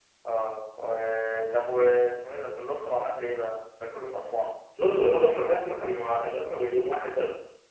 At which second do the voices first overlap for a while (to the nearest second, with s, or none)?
none